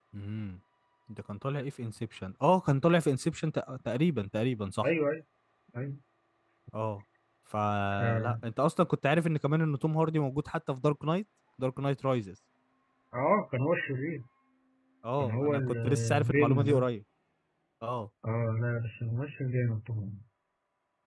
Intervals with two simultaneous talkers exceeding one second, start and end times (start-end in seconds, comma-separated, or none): 15.2-16.9